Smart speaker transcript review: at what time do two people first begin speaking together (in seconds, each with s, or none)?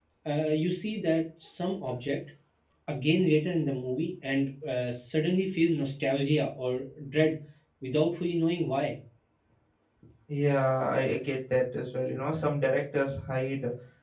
none